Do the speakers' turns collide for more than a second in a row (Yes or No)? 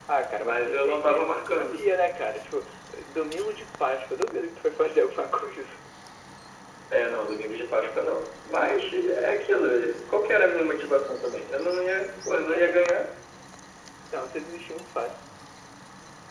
Yes